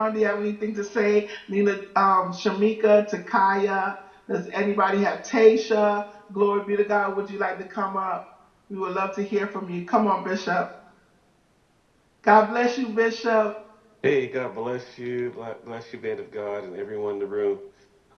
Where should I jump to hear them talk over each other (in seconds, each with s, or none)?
none